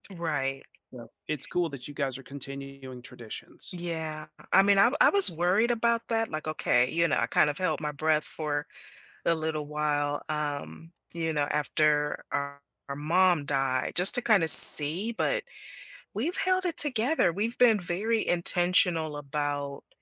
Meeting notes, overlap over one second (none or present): none